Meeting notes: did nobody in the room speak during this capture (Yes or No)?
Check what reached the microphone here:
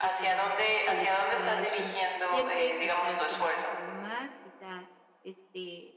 No